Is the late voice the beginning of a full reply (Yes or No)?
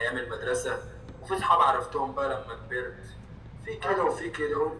No